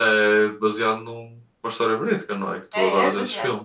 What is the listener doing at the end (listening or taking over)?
taking over